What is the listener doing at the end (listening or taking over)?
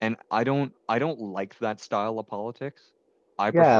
taking over